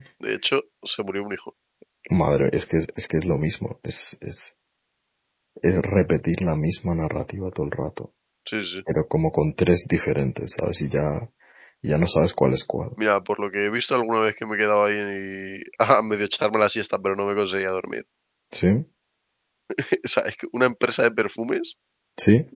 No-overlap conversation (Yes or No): Yes